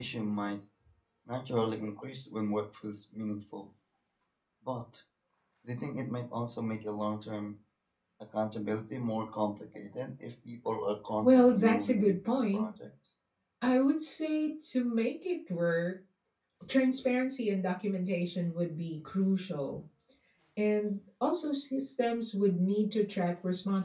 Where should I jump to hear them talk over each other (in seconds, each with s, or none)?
11.2 s